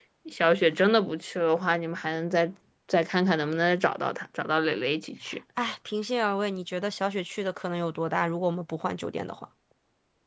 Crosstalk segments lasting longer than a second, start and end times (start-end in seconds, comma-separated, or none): none